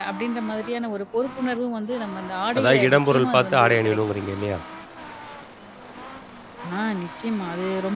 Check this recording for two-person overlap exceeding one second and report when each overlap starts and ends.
2.6-4.0

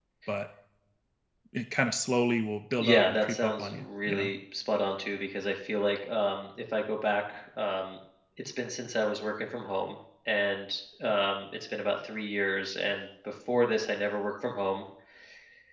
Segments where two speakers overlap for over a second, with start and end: 2.8-4.3

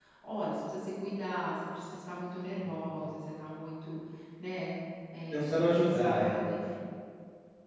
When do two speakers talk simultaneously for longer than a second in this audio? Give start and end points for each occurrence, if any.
5.3-6.6

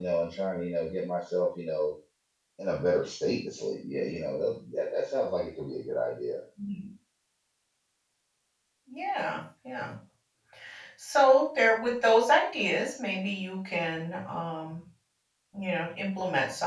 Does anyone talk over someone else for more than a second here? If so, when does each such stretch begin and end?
none

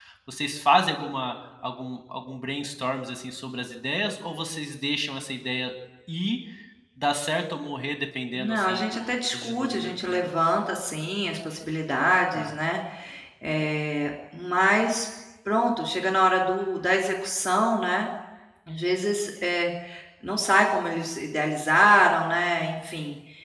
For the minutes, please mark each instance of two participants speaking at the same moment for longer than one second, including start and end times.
8.3-10.3

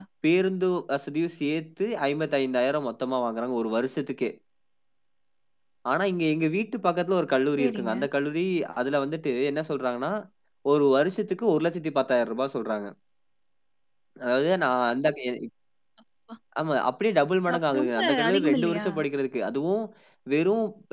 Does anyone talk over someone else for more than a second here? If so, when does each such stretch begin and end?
17.6-18.9

